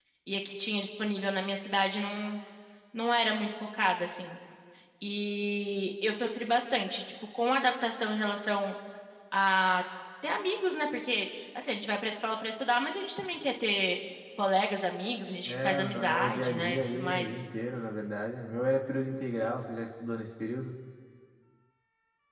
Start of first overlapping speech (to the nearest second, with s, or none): 15 s